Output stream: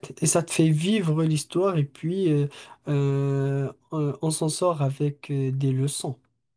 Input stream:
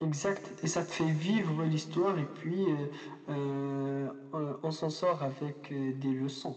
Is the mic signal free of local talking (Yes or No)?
Yes